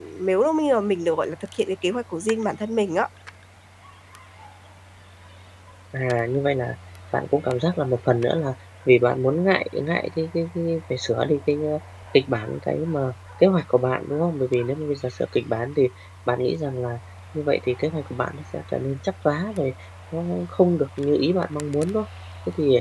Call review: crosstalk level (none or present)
none